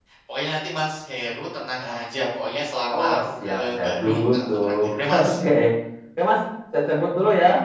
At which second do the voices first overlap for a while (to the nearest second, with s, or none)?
3 s